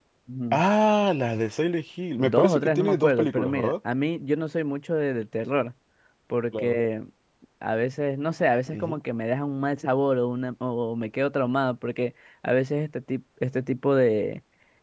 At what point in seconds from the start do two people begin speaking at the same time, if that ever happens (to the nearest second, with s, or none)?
2 s